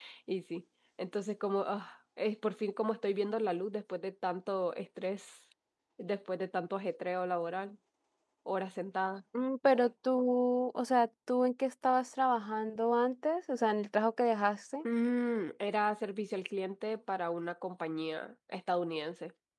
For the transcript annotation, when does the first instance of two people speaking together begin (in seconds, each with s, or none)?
none